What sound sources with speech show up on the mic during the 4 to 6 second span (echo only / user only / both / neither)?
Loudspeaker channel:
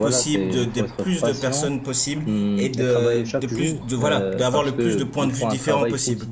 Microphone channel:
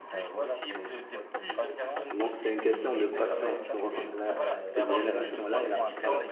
both